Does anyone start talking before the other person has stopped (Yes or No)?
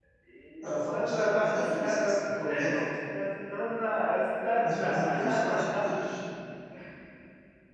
Yes